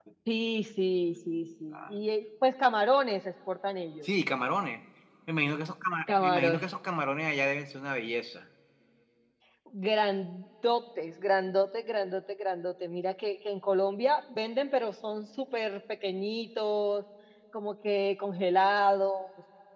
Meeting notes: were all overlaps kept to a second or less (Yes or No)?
Yes